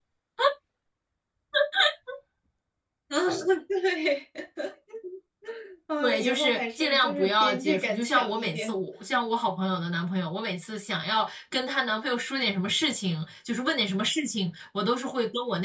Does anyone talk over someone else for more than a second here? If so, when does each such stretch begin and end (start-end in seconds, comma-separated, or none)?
6.0-8.8